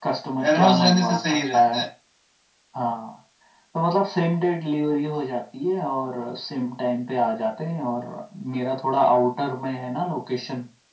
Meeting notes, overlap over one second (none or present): present